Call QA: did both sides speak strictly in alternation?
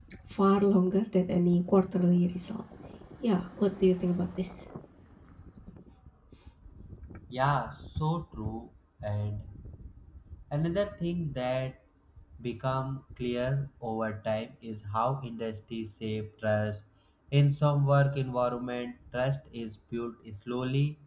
Yes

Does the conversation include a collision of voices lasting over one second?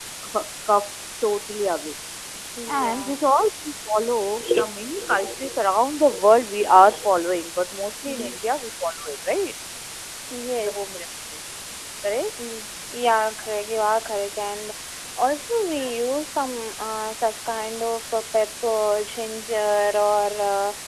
No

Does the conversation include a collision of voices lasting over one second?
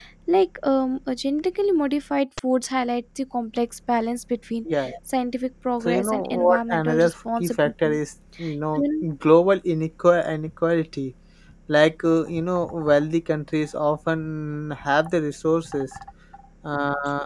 Yes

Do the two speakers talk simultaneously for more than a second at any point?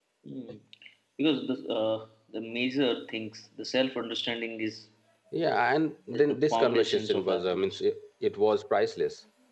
Yes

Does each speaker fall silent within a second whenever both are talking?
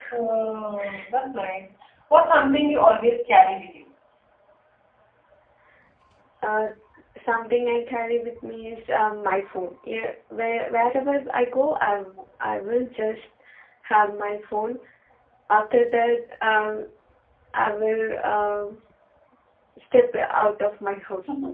Yes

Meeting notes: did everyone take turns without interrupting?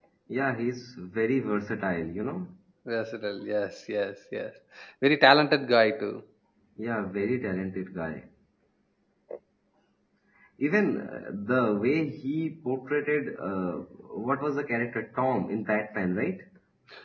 Yes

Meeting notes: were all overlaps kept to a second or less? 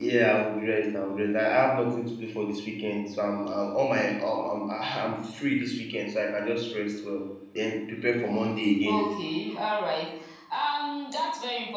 Yes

